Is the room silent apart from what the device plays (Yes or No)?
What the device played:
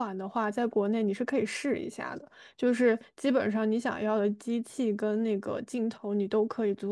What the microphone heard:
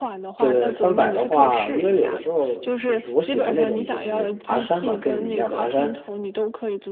No